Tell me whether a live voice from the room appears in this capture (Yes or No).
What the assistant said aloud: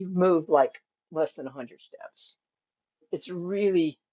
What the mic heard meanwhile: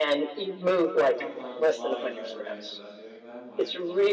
Yes